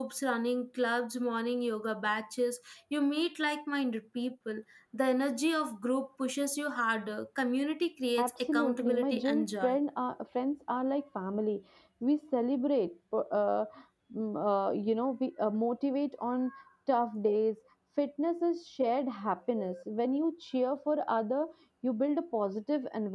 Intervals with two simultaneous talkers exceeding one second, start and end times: 8.2-9.8

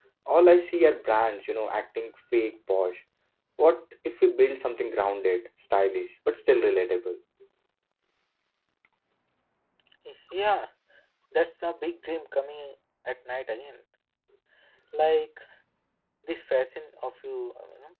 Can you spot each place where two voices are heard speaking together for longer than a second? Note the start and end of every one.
none

